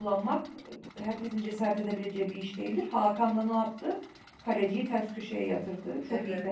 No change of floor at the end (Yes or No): No